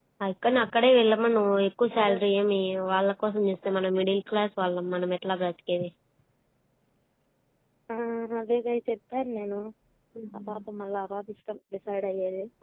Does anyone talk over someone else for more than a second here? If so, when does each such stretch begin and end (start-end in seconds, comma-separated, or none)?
none